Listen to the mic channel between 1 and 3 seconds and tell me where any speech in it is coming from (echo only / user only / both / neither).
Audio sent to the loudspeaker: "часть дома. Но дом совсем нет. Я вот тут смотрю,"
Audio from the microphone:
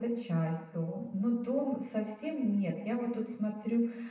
echo only